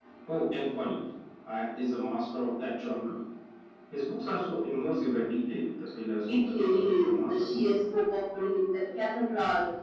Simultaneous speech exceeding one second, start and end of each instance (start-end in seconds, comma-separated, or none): 6.3-7.6